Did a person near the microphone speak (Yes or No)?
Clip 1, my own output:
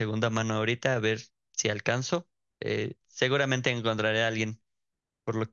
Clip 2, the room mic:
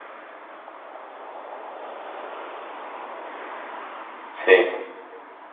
Yes